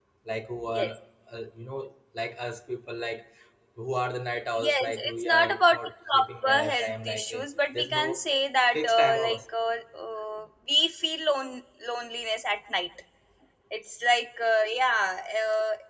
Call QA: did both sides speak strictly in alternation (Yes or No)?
No